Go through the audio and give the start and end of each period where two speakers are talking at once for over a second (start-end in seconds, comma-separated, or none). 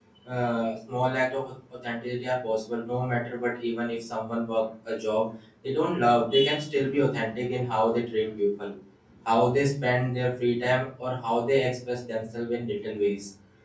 none